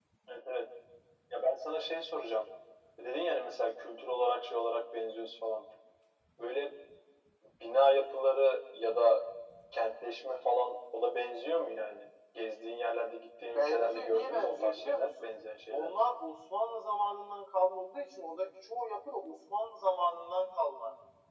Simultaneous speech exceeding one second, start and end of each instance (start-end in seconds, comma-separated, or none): 13.5-15.2